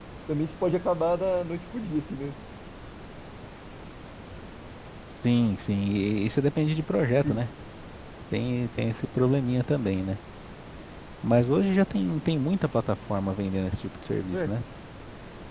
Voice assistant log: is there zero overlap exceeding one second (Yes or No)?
Yes